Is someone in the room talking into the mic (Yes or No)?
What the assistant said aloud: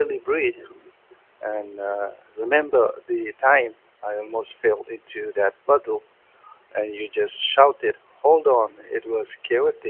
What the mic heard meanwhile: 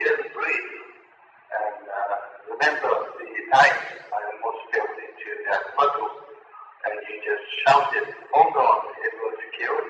No